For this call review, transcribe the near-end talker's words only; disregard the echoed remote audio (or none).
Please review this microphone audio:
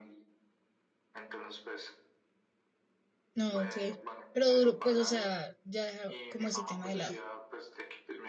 No, ok. Pero duro, pues, o sea, ya dejar como ese tema de lado.